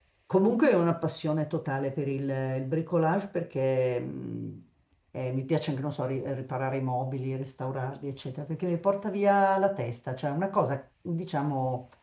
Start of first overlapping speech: none

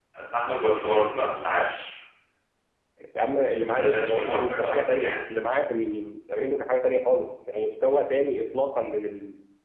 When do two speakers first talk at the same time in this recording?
3 s

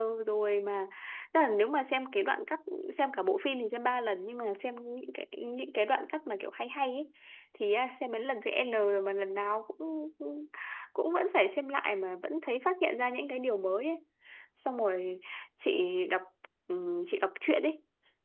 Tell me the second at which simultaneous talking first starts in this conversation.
none

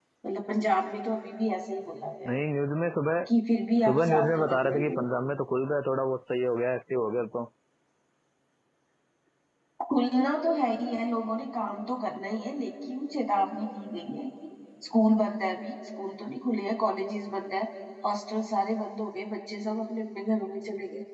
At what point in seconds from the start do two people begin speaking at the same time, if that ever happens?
4 s

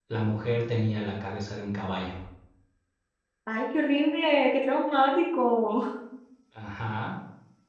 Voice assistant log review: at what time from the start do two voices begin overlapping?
none

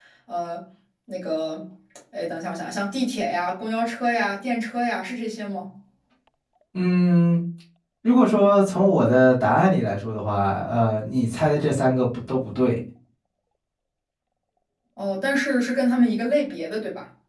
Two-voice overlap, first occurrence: none

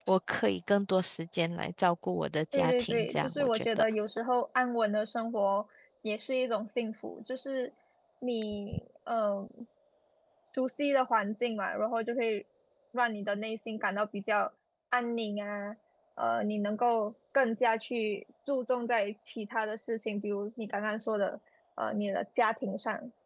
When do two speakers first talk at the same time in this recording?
3 s

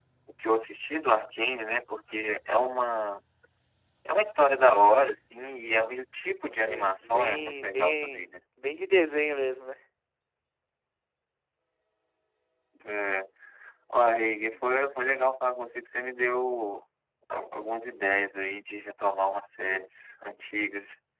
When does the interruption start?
7 s

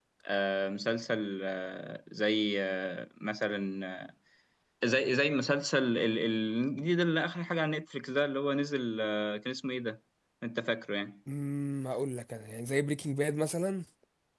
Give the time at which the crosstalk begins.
none

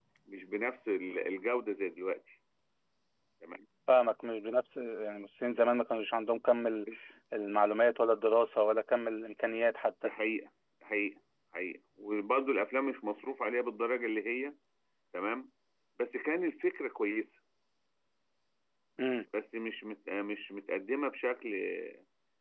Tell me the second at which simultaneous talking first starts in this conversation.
none

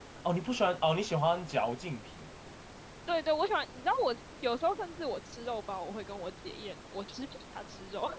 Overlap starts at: none

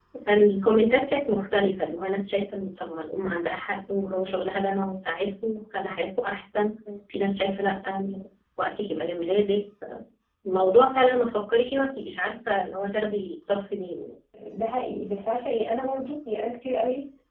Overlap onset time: none

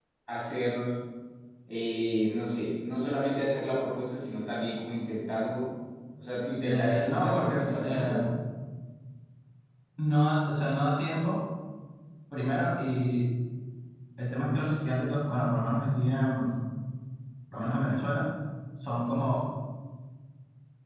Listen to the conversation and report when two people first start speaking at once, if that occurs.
7 s

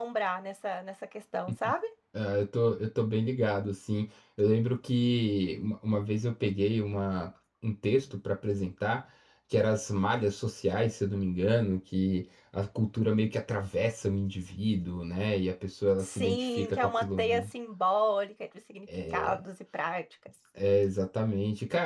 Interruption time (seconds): 16 s

